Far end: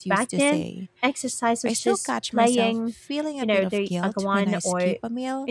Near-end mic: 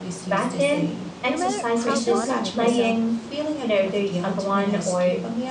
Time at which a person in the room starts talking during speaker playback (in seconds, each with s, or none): 1.3 s